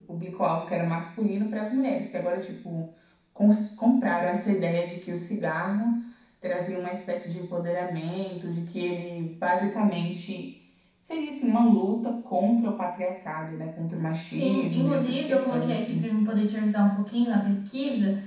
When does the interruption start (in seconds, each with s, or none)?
14.2 s